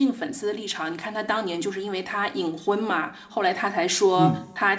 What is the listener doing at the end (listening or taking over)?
listening